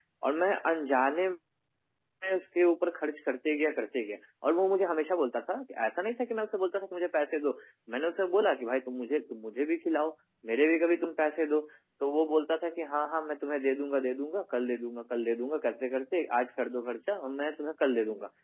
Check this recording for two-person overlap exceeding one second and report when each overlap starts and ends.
none

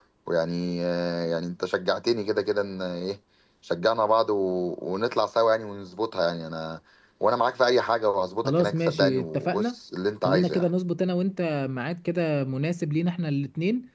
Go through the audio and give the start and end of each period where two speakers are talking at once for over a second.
8.4-9.8

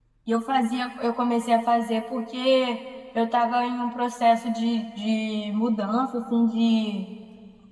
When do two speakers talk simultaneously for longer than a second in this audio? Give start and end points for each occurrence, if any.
none

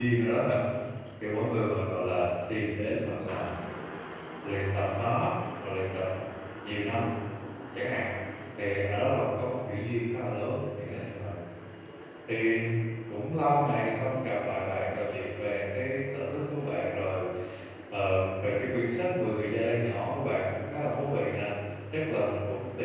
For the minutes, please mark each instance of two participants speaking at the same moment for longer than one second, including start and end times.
none

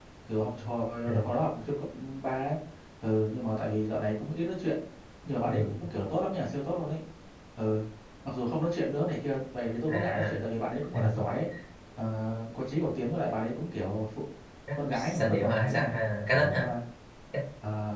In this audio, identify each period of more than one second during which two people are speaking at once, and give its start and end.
14.7-15.9

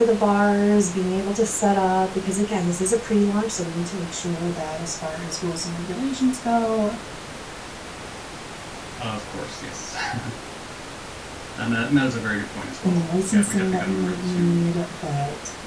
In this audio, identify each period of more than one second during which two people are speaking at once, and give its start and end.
12.8-14.6

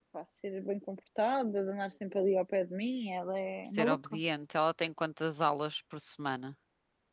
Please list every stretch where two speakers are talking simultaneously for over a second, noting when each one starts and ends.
none

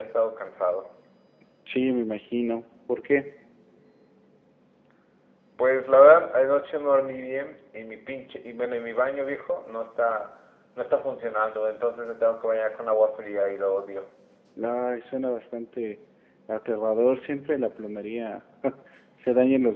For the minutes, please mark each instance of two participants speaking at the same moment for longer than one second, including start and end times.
none

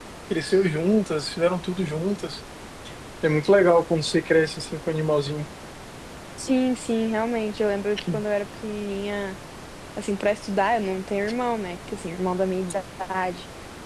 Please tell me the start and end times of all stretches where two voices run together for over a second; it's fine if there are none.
none

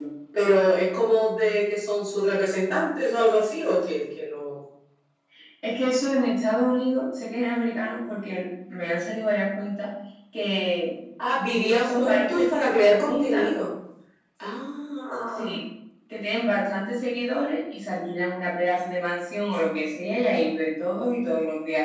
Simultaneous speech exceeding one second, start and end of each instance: 11.8-13.5

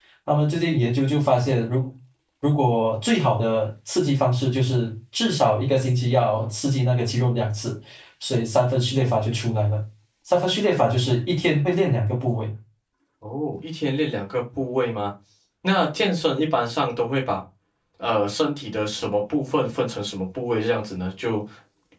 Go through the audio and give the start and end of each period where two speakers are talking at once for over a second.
none

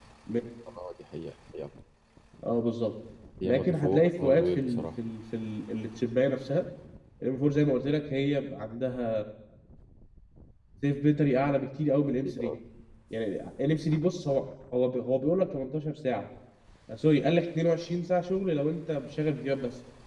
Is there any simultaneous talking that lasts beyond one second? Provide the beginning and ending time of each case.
3.4-4.9

